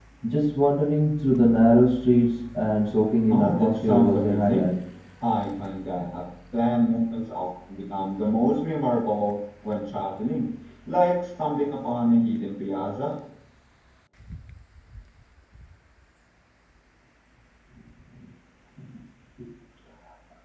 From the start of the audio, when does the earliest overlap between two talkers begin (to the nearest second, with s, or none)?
3 s